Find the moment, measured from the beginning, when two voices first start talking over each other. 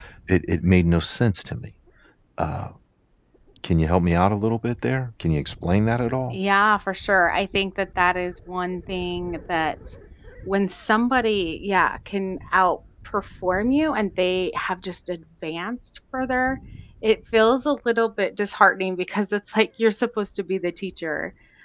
none

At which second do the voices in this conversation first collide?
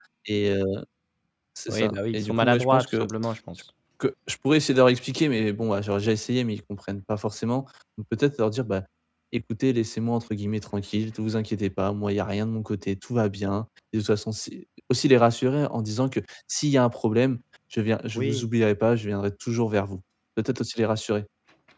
1.7 s

